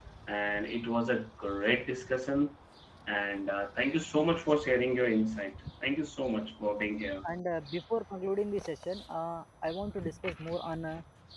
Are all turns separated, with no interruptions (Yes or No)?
Yes